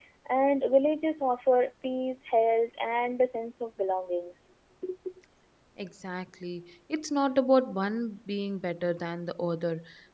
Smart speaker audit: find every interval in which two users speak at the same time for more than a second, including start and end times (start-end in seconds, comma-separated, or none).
none